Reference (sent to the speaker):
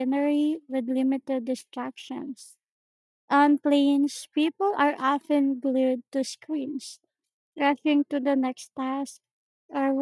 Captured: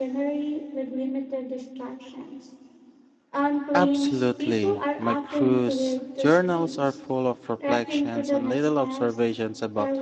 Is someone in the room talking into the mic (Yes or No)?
Yes